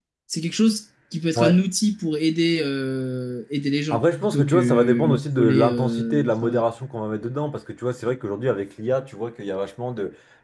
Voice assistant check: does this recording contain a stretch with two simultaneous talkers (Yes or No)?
Yes